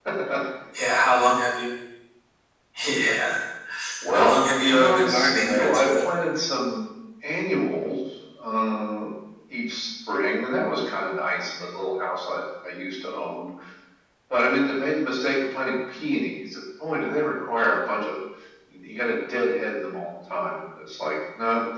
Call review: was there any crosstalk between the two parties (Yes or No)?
Yes